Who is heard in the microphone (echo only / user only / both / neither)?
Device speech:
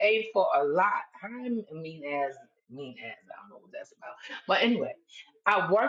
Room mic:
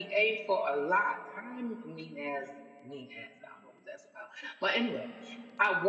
echo only